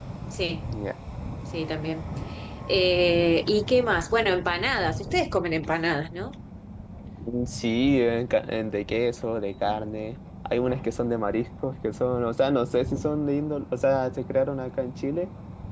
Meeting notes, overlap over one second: none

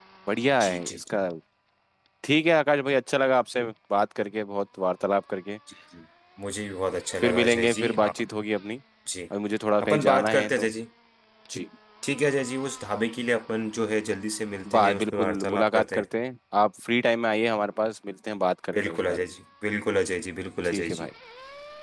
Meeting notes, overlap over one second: present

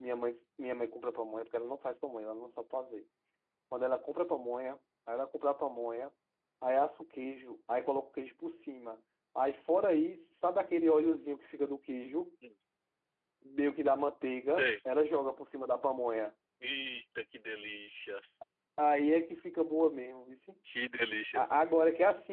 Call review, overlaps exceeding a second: none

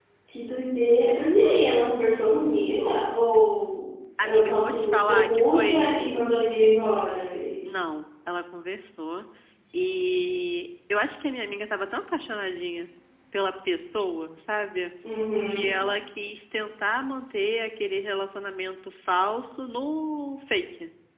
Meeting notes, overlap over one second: present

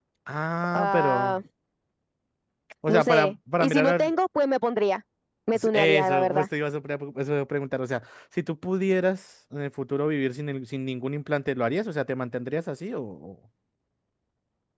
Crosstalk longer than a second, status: present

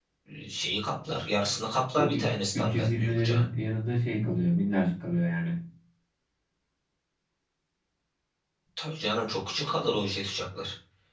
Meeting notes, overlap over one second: present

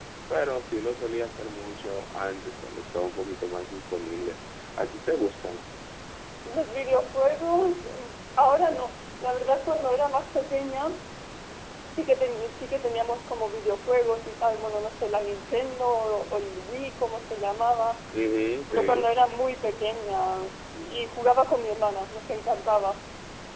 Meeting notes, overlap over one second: none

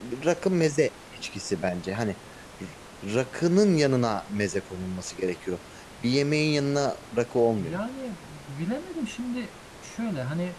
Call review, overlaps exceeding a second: none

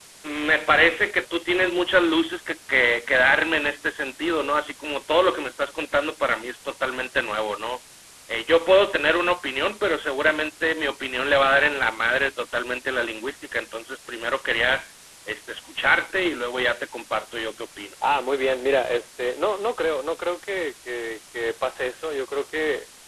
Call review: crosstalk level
none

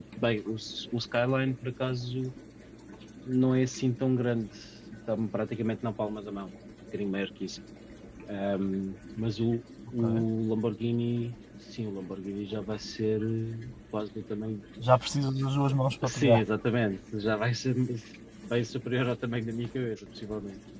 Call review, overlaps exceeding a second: none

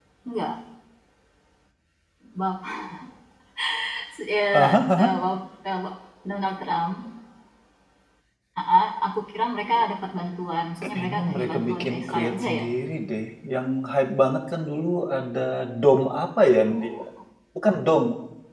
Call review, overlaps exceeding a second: present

